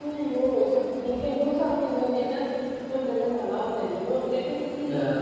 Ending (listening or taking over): listening